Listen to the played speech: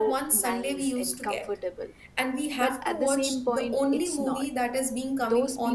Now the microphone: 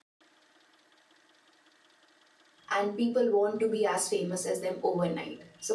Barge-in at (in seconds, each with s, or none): 2.7 s